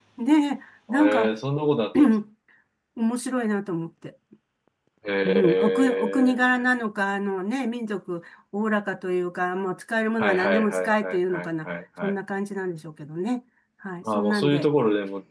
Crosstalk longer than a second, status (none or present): present